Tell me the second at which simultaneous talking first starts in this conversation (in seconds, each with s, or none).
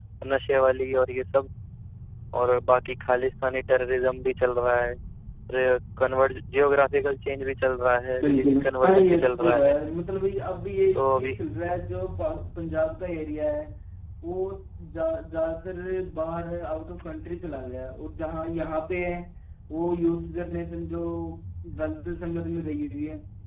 8.2 s